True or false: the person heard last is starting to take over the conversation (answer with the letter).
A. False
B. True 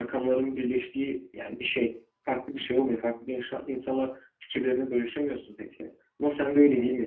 A